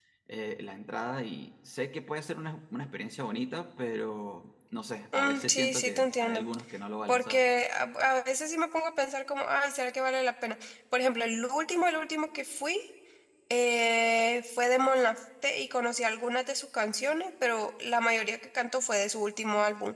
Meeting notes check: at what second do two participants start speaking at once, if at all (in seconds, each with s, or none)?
5.1 s